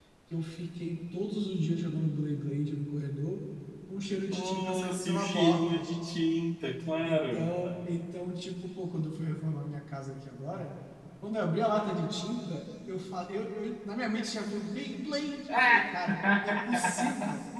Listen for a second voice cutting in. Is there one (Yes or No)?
Yes